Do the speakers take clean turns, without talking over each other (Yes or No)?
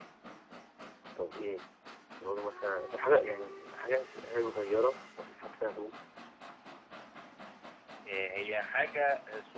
Yes